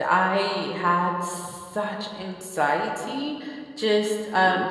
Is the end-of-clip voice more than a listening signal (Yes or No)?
No